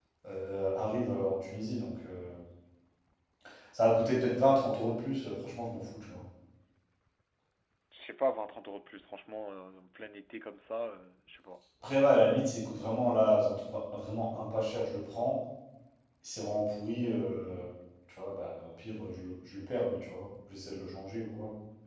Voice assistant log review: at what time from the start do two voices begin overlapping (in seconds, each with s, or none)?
none